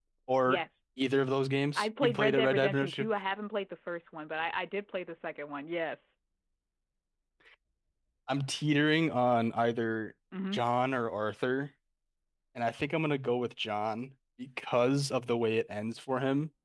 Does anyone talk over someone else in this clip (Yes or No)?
Yes